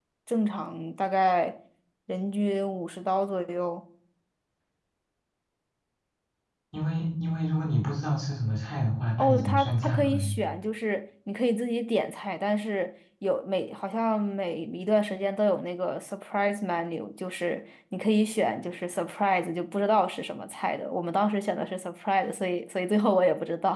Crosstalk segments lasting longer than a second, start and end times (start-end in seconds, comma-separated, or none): 9.2-10.4